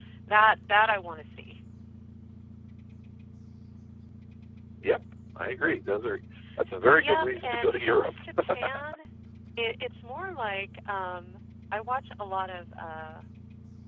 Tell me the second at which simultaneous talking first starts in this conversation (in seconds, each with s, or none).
6.9 s